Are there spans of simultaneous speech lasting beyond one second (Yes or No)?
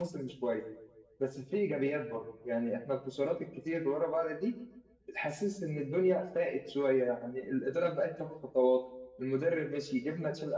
No